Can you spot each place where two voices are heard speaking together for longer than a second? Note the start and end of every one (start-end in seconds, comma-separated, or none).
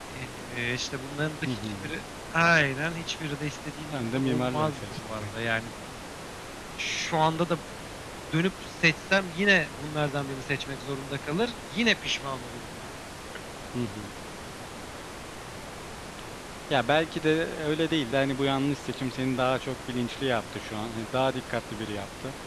3.9-5.2